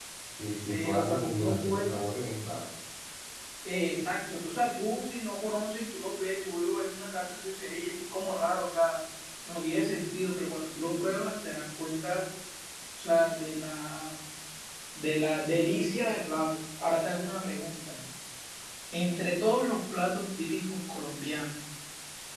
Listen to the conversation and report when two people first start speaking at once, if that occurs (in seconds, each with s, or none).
0.7 s